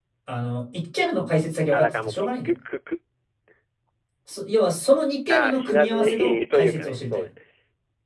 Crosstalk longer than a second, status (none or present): present